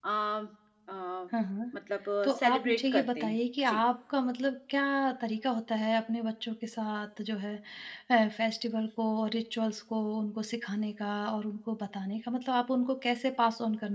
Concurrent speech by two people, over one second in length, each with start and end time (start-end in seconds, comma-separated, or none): 2.2-3.8